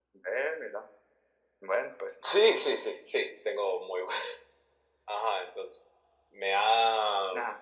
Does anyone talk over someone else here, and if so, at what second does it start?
none

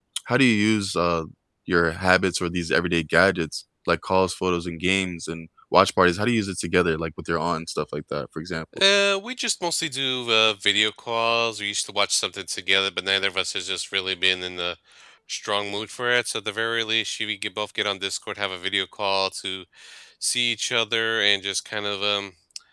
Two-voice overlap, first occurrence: none

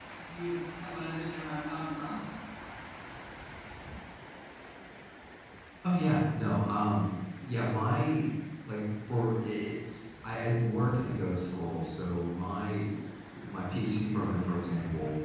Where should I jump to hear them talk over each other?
none

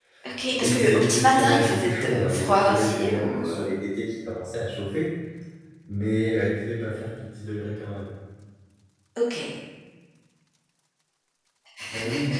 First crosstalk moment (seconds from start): 1 s

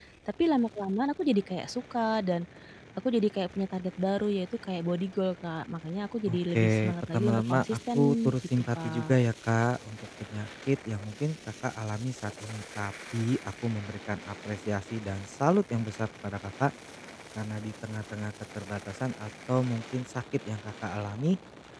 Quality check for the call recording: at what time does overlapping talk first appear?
6 s

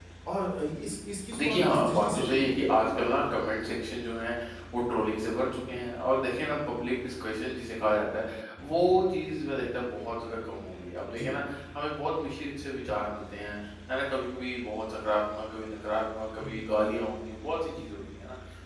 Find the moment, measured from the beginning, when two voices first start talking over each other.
1 s

